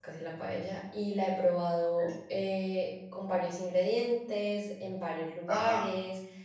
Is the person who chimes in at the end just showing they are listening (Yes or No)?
Yes